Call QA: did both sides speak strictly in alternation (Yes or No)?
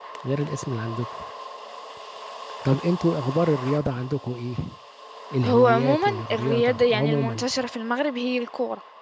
No